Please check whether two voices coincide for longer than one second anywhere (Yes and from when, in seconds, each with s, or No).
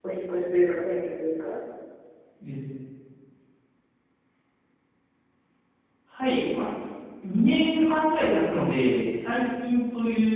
No